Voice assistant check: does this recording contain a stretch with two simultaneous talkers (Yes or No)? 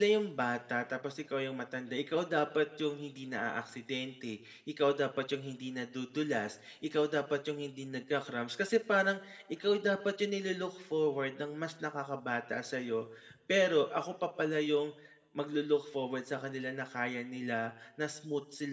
No